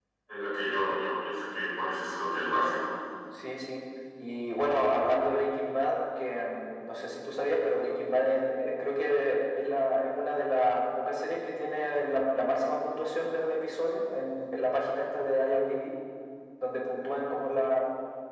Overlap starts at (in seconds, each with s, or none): none